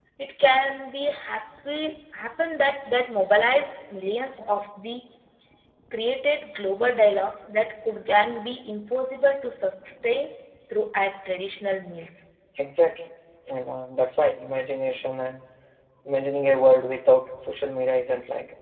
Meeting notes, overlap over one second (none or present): none